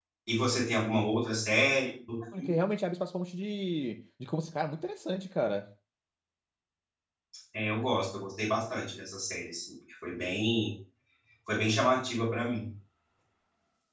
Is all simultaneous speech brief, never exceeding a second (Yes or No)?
Yes